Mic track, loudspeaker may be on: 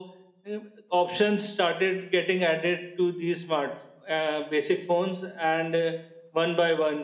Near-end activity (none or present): none